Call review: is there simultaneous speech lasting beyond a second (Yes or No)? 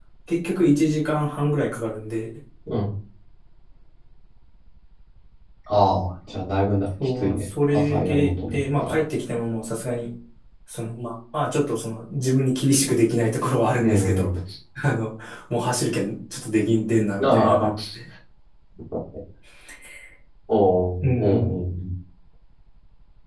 Yes